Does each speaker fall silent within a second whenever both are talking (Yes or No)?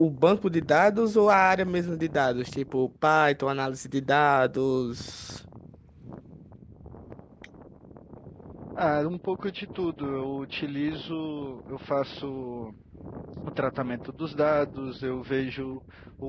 Yes